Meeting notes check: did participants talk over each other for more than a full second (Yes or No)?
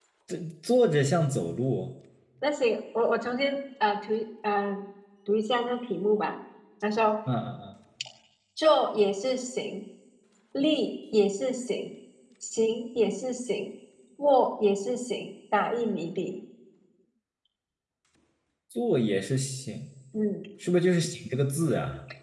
No